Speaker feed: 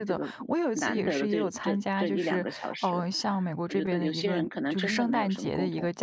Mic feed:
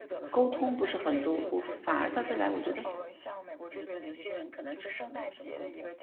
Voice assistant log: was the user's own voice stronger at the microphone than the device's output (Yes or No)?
Yes